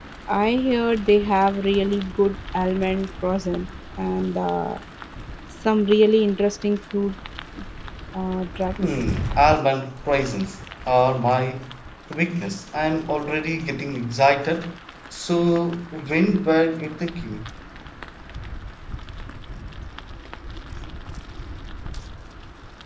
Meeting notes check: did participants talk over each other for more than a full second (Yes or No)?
No